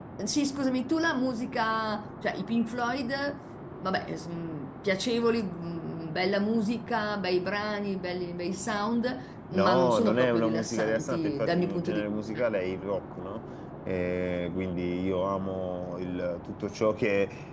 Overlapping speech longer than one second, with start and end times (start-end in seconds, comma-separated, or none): 9.5-12.4